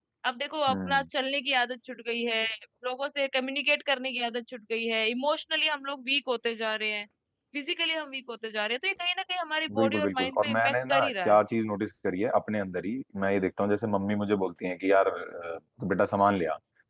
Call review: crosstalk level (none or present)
present